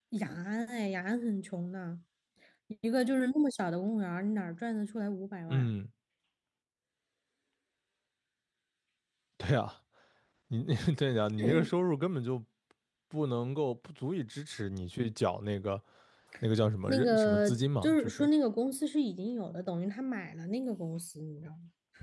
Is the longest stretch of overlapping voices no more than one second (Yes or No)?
No